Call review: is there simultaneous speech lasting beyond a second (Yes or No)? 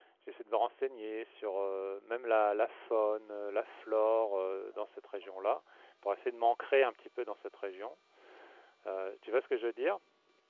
No